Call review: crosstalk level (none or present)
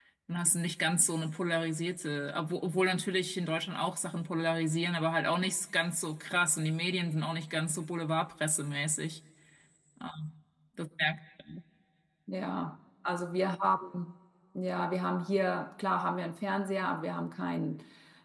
none